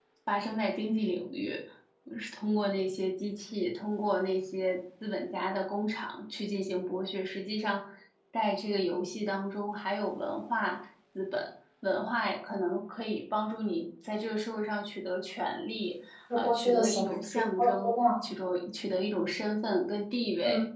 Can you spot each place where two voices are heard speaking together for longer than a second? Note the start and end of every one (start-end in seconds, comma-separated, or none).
16.4-18.3